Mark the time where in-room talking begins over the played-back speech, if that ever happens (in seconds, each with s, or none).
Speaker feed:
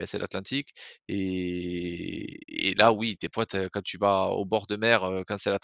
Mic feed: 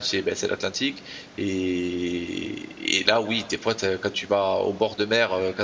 none